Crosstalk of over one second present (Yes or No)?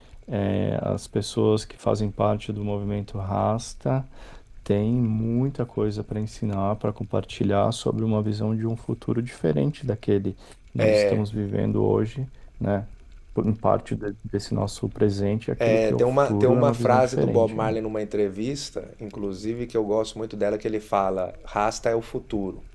Yes